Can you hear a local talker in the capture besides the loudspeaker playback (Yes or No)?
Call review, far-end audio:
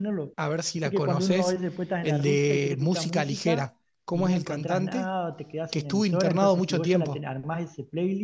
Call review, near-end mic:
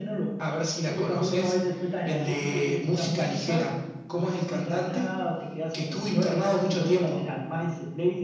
No